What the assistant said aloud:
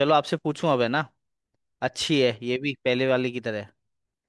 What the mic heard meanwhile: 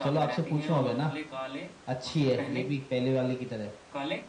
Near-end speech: present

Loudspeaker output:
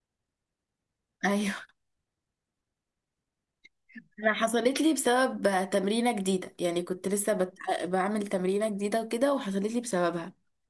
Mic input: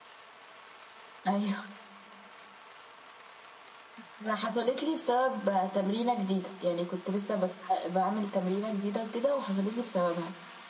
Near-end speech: none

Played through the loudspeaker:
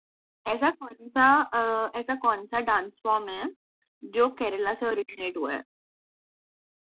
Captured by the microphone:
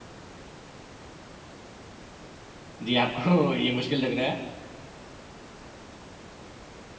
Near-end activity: present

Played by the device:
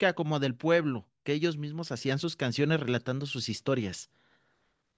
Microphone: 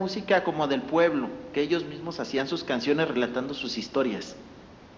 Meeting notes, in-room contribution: none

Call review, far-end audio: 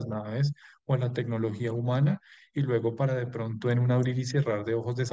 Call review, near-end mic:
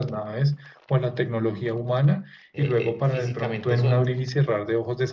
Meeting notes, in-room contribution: present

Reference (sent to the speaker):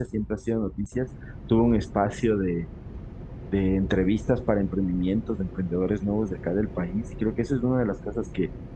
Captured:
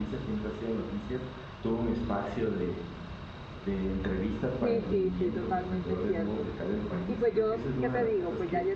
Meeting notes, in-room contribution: present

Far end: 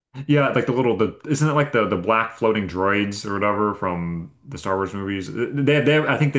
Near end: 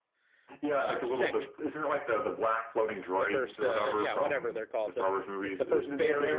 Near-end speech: present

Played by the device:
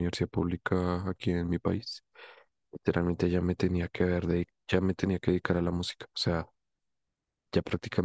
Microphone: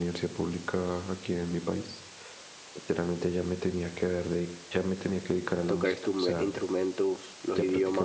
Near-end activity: present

